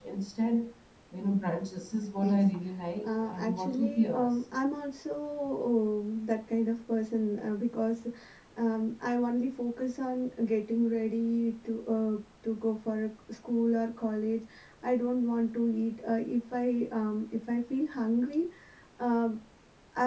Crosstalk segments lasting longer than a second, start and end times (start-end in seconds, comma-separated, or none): 3.0-4.3